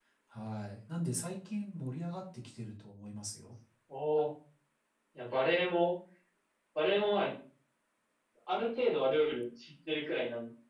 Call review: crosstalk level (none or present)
none